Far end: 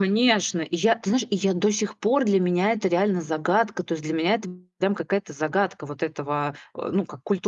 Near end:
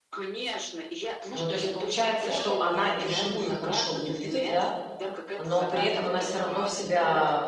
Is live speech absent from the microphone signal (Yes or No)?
No